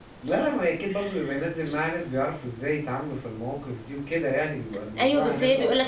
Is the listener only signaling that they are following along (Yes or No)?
No